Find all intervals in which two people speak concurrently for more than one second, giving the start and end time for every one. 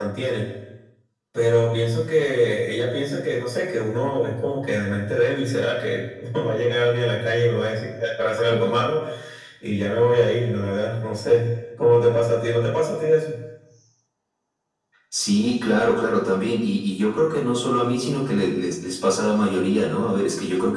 none

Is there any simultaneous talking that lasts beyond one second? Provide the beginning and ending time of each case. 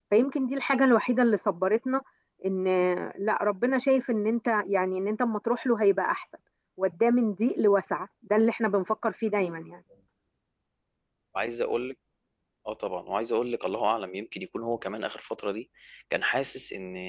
none

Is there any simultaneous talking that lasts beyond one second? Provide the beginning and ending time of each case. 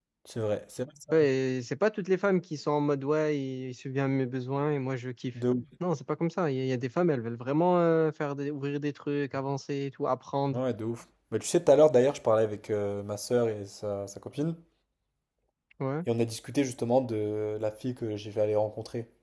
none

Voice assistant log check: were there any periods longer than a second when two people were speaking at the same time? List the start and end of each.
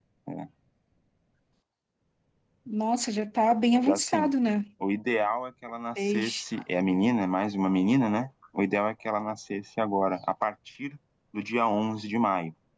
none

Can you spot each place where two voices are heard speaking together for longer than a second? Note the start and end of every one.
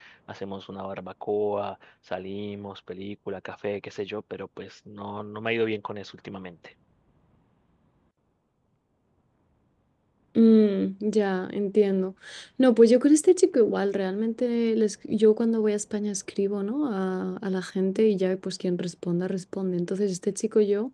none

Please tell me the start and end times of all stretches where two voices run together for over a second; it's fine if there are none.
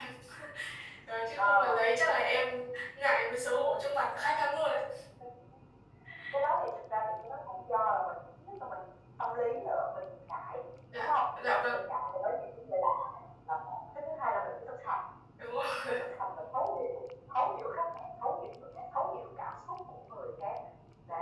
none

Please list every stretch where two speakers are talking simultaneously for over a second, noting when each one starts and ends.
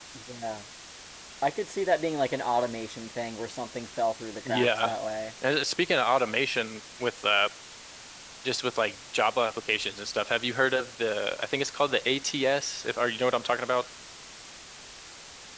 none

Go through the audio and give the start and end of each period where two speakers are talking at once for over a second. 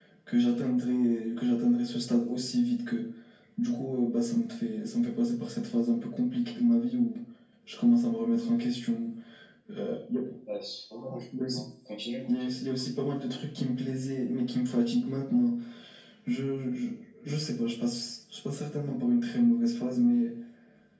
none

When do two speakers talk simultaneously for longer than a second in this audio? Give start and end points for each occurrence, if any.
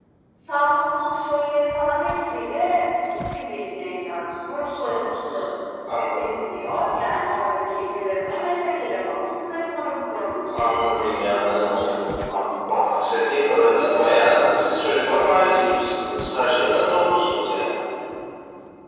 10.4-12.0

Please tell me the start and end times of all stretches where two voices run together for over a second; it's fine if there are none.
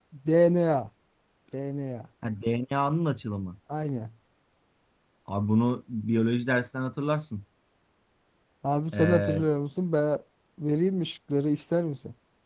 none

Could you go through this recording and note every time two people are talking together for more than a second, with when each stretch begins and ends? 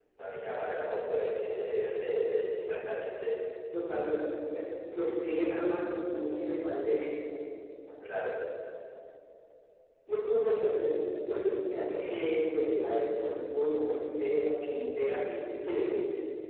none

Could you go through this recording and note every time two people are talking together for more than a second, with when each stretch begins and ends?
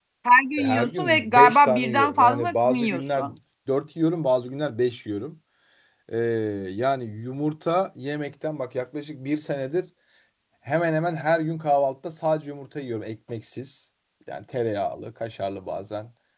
0.6-3.2

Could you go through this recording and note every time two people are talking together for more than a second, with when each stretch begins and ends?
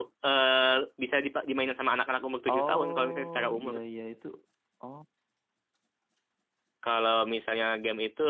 2.5-3.8

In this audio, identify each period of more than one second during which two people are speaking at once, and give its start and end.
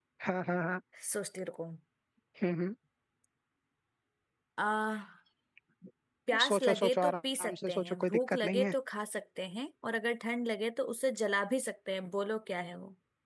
6.5-8.7

